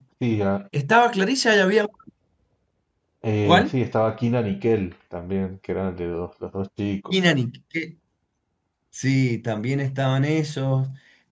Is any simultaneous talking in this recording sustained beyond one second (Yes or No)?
No